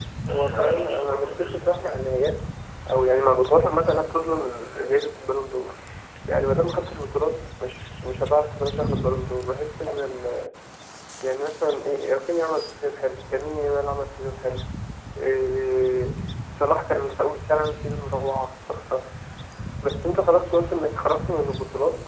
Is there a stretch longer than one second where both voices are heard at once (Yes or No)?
Yes